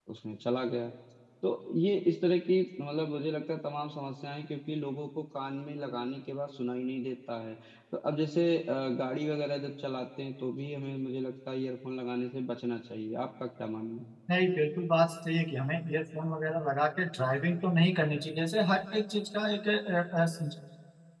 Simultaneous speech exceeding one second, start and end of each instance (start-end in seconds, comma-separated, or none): none